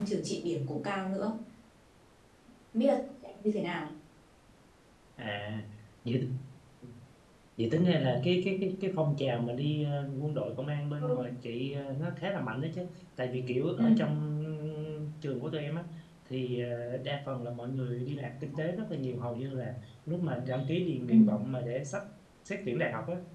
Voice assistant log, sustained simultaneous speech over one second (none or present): none